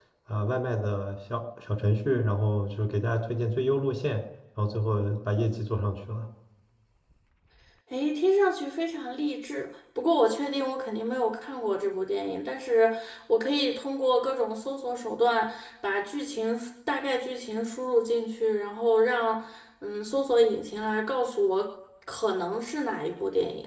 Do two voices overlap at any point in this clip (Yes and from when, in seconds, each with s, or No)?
No